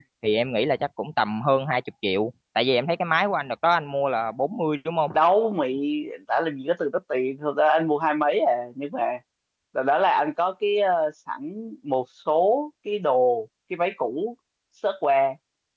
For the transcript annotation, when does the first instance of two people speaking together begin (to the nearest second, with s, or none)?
none